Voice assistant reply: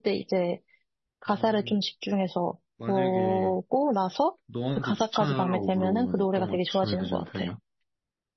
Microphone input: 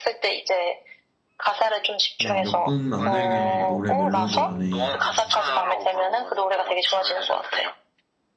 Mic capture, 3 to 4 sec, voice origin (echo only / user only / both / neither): both